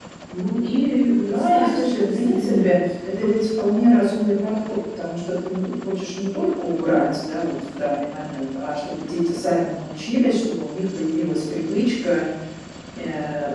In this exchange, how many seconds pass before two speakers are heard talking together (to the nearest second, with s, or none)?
1 s